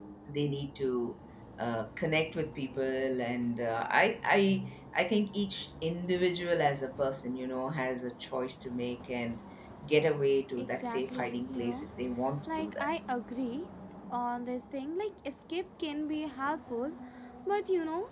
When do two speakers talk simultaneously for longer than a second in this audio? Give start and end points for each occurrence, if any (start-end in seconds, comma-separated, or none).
10.6-11.9